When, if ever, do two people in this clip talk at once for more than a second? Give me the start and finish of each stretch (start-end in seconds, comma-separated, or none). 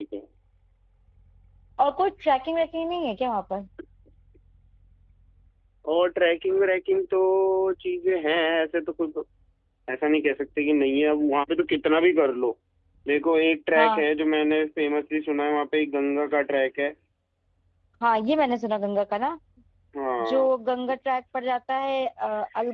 none